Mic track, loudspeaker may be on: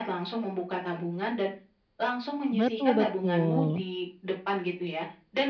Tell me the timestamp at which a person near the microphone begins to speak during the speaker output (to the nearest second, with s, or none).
3 s